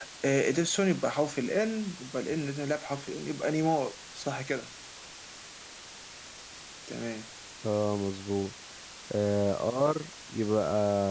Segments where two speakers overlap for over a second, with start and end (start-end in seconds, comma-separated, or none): none